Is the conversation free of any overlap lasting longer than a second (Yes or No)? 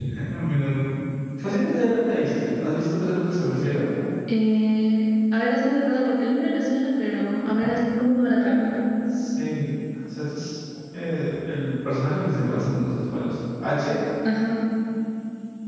Yes